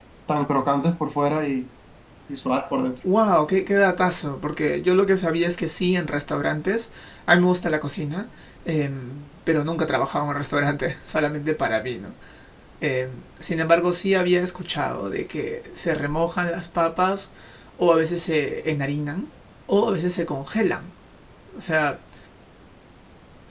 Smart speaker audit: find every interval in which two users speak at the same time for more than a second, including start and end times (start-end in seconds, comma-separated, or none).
none